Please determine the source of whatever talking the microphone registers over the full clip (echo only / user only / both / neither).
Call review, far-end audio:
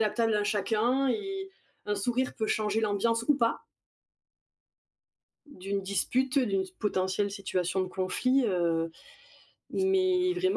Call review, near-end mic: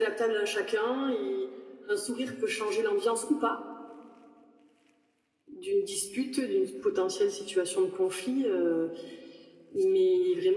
echo only